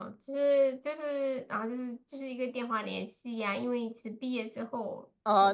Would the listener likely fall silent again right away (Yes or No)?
No